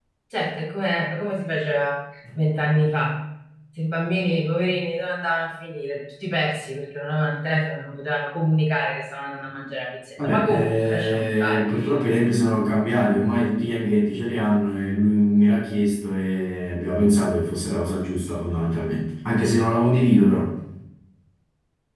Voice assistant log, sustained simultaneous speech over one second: present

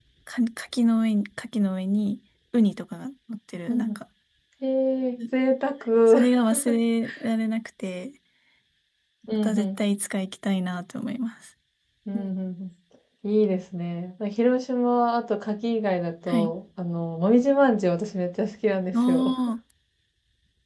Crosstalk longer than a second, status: none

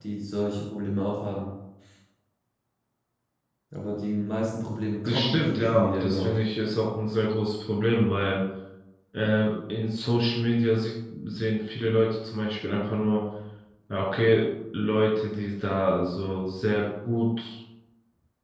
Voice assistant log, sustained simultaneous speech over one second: present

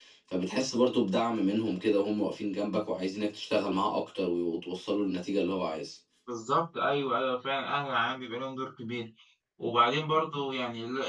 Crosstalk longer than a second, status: none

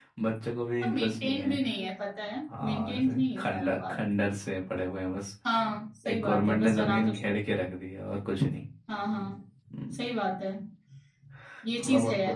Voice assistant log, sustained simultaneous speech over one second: present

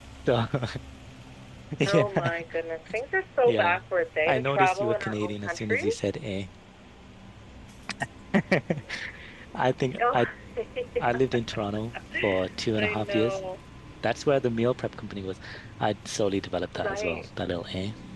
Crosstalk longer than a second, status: present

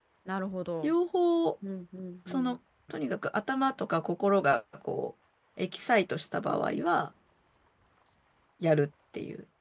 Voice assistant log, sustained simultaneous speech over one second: none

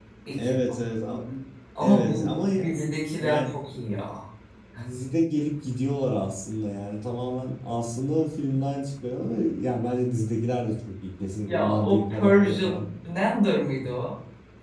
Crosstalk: present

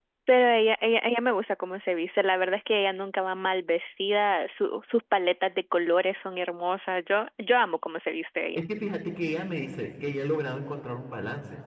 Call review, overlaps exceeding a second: none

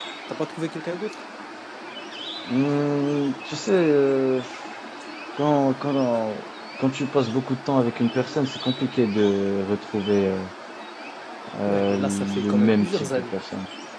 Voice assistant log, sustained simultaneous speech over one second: present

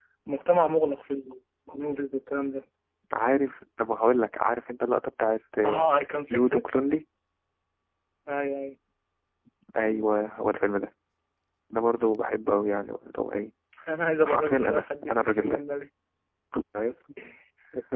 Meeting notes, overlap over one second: present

